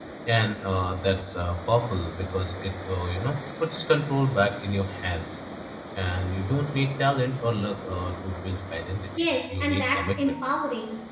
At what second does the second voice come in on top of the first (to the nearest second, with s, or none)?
9 s